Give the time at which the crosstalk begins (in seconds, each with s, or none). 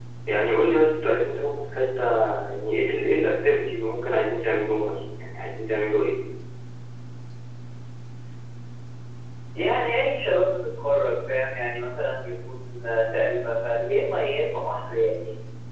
none